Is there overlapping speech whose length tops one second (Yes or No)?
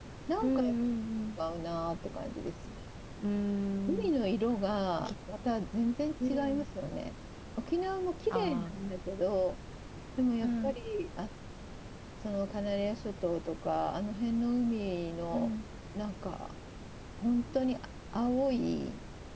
No